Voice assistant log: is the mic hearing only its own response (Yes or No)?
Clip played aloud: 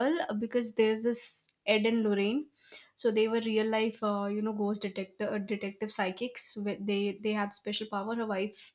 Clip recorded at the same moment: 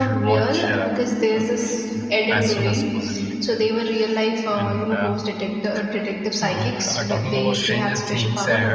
No